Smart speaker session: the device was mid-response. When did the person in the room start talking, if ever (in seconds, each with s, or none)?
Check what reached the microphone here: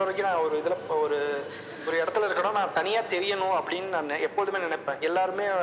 none